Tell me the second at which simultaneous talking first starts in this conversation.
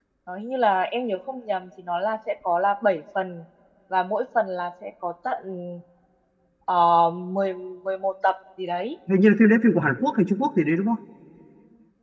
none

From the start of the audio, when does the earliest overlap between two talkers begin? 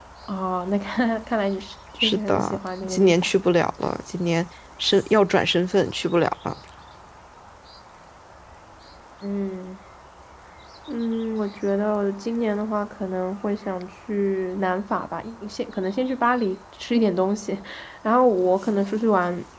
2.0 s

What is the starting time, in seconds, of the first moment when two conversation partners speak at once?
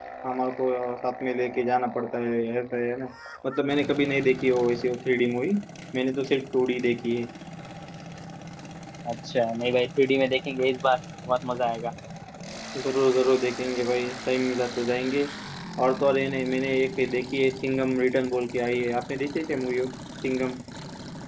none

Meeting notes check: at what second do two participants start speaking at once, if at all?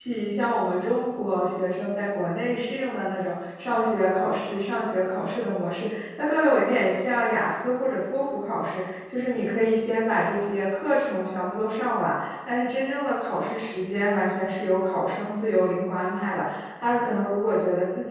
none

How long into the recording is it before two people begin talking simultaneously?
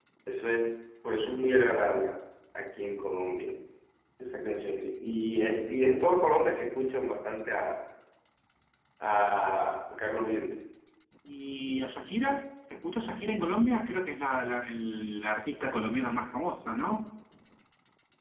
none

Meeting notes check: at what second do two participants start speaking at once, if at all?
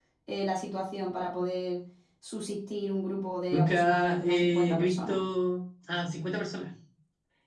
3.5 s

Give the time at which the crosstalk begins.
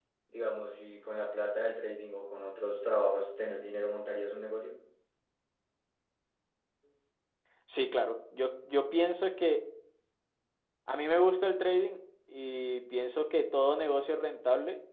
none

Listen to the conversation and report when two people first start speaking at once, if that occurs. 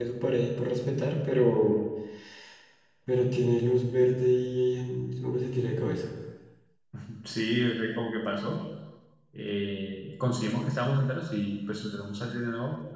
none

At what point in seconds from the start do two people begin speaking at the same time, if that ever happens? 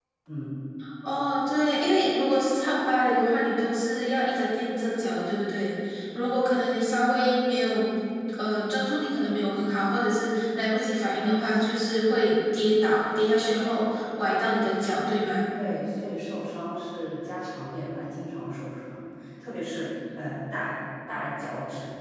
none

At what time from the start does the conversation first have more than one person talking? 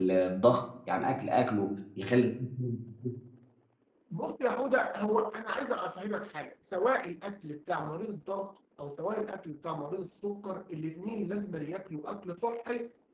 none

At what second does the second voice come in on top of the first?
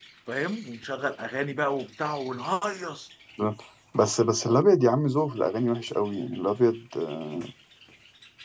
none

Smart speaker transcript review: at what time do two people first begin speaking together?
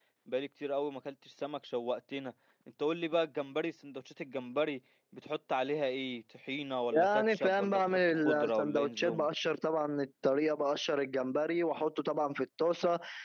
6.9 s

